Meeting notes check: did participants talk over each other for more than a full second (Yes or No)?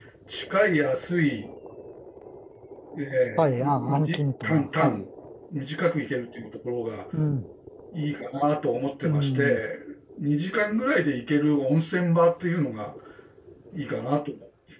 Yes